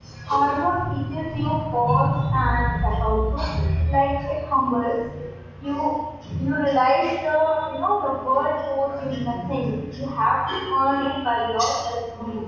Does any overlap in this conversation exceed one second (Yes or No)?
No